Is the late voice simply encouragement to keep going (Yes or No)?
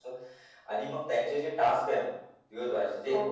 Yes